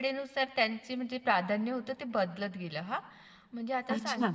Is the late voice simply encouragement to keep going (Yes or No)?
Yes